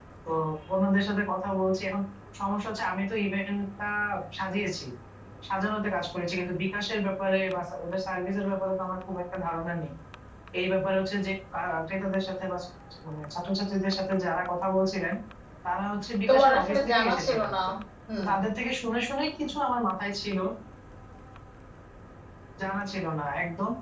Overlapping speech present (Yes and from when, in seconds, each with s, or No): Yes, from 16.3 s